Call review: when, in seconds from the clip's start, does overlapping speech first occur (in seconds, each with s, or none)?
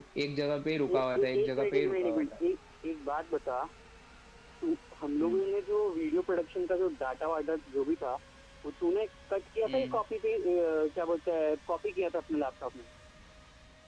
0.9 s